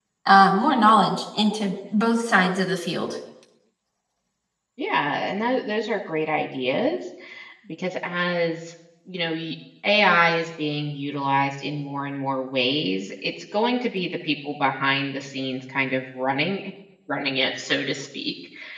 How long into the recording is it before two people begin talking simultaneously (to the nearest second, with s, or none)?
none